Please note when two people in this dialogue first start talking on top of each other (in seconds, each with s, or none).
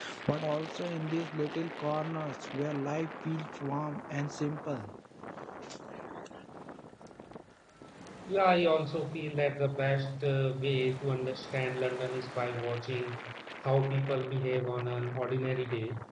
none